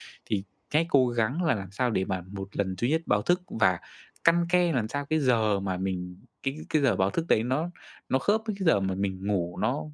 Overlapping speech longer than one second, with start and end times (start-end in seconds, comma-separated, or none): none